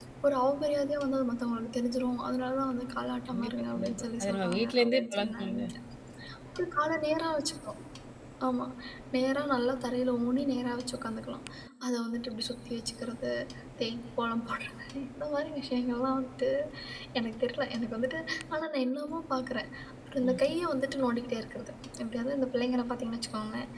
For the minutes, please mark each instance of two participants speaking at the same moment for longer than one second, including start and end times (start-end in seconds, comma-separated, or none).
3.3-5.6